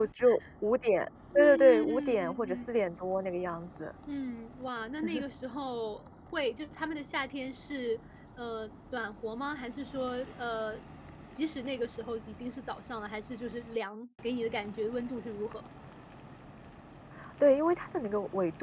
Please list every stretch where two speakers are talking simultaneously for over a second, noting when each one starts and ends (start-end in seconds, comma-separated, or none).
1.4-2.7